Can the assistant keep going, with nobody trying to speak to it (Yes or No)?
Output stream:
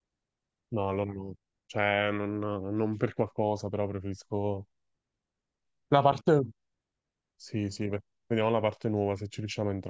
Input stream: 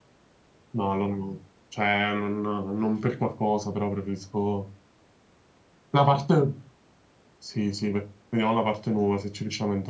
Yes